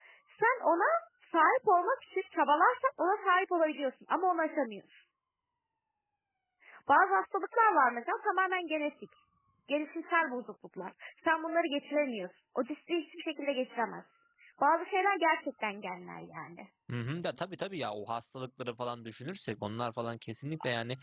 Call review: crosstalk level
none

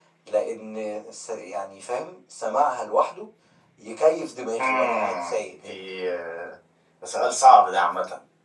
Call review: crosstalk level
present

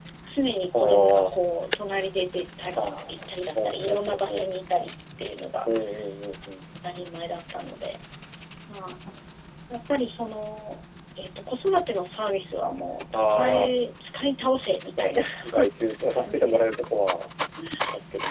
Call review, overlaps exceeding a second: present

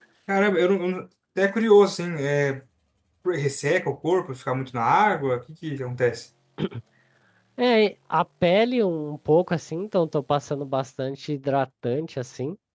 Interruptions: none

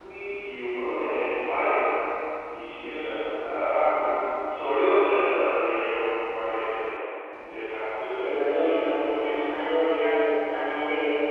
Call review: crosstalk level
present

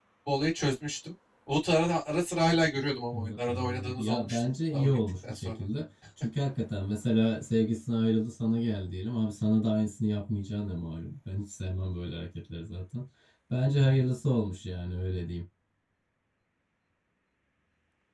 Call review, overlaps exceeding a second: present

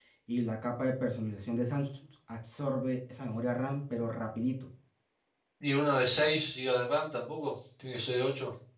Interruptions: none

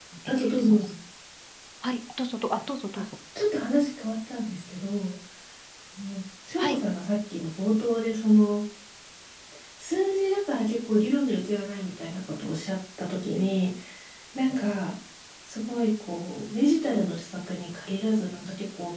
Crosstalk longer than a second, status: none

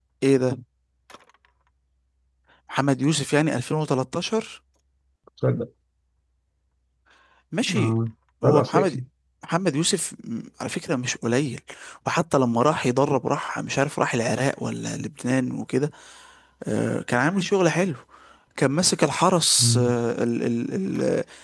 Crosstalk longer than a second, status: none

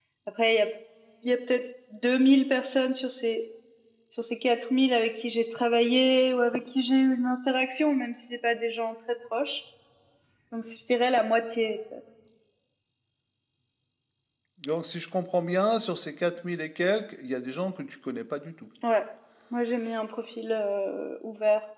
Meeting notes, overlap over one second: none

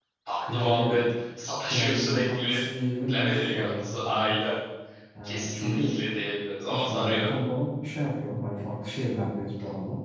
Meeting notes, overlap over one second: present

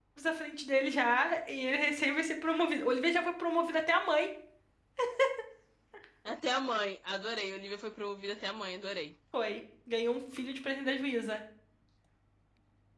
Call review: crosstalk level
none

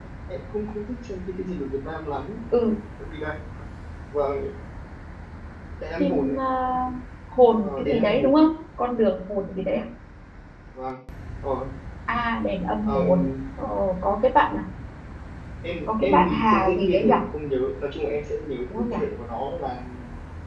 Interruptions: present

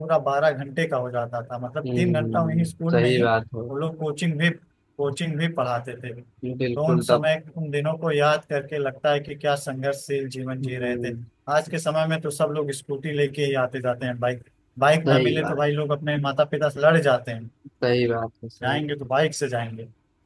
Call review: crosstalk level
present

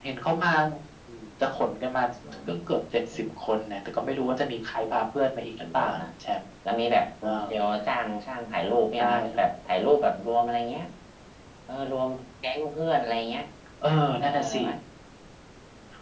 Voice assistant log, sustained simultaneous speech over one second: none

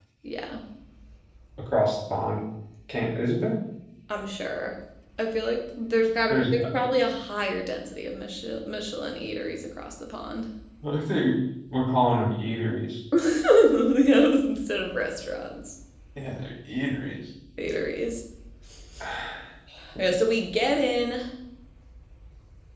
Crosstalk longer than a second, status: none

